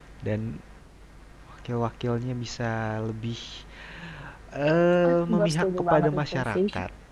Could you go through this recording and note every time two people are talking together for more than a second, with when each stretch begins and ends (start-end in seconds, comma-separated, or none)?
5.1-6.6